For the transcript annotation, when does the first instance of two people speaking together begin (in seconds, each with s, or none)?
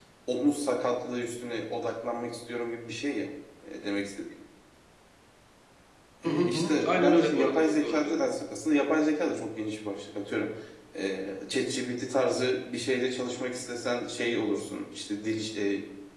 6.2 s